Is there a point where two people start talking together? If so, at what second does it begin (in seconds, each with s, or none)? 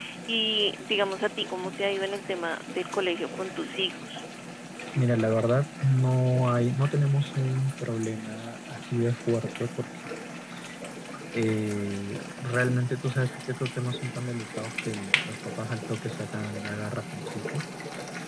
none